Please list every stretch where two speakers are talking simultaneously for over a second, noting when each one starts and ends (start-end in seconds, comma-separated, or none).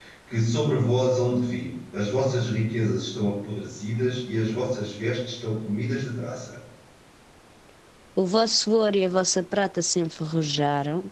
none